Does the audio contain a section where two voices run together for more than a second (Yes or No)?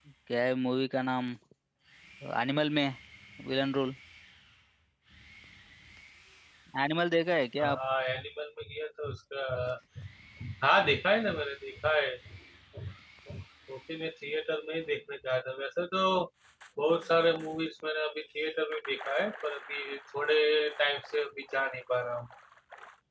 No